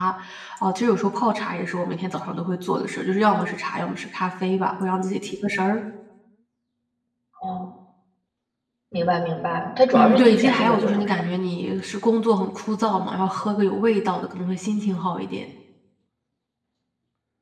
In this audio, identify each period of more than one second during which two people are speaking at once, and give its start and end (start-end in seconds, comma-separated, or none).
9.9-11.2